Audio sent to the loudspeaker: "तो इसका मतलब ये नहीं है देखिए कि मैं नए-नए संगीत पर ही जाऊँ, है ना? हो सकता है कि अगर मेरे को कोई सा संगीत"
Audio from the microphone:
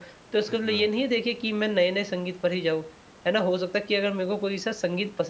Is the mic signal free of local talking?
No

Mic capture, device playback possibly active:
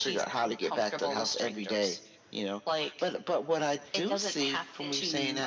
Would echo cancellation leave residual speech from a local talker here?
Yes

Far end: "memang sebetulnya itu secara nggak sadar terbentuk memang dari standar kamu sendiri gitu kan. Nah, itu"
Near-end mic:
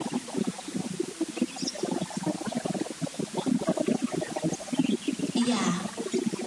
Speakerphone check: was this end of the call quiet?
No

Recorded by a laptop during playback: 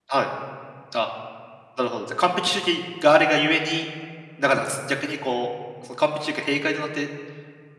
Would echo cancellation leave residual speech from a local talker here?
Yes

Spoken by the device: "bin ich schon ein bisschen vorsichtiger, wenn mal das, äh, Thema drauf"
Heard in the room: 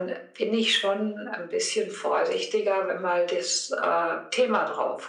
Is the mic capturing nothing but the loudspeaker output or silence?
Yes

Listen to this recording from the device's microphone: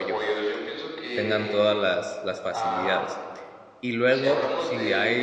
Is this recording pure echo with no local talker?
No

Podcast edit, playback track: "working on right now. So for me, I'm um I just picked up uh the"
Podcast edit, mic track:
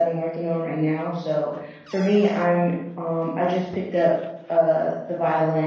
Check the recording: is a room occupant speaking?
No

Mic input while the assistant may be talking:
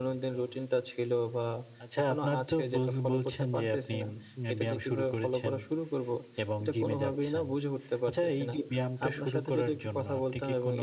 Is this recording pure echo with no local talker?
Yes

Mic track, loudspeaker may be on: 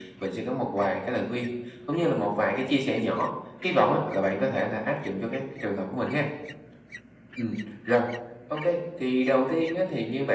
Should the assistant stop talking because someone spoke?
No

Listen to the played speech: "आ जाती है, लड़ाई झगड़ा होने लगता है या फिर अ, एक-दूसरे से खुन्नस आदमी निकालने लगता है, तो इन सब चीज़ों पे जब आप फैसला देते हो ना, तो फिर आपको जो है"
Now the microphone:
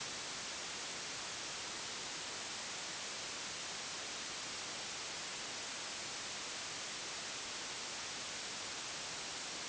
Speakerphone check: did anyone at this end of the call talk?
No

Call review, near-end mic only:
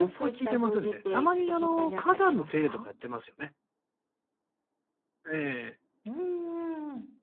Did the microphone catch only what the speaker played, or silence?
No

